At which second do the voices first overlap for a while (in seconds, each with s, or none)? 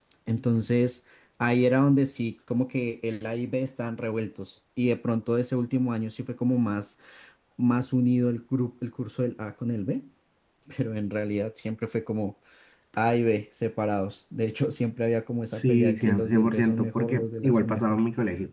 15.5 s